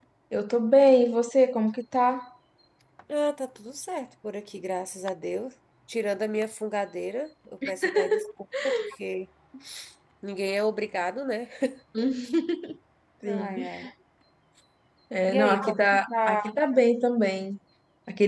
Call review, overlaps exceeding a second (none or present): present